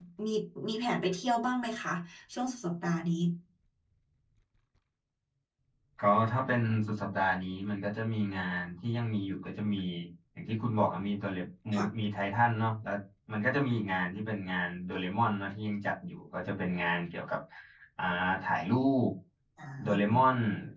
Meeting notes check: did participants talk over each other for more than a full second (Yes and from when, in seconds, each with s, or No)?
No